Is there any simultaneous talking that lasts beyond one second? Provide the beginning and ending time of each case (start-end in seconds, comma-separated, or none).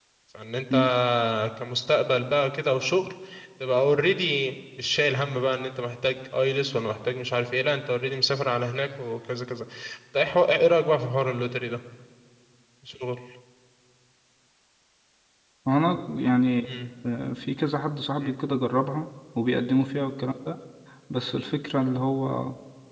none